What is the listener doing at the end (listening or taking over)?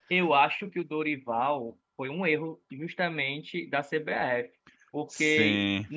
listening